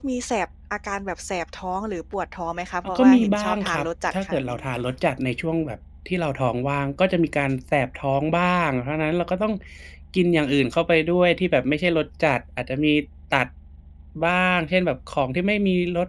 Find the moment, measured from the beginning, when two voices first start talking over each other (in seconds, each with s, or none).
2.8 s